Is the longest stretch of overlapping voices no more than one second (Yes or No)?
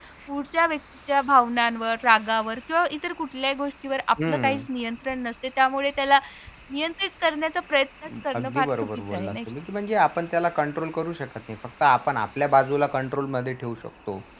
No